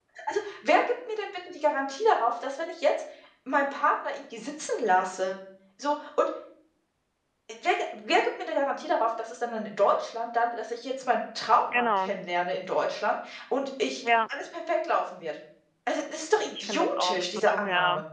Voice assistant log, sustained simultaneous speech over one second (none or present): present